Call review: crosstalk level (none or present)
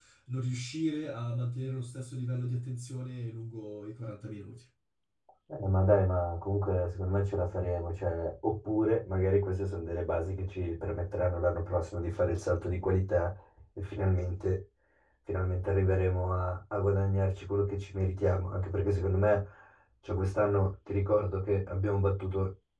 none